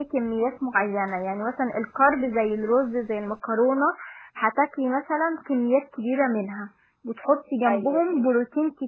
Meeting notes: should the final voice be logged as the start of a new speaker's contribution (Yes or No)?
No